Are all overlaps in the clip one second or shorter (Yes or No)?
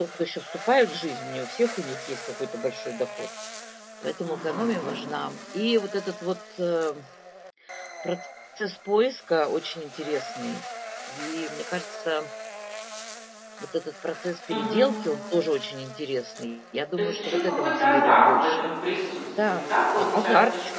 No